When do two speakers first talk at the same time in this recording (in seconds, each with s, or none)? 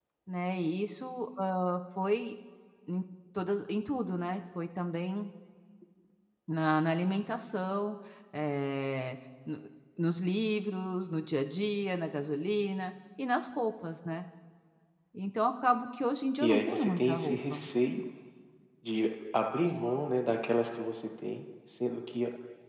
16.4 s